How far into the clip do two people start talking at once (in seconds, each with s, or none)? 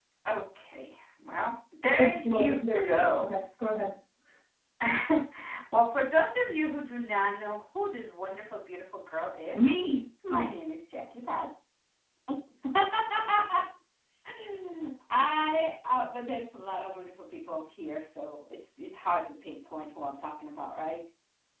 2.0 s